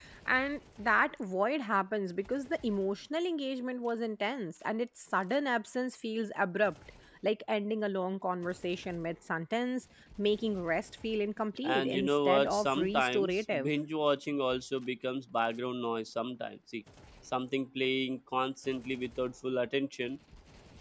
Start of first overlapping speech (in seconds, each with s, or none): 11.6 s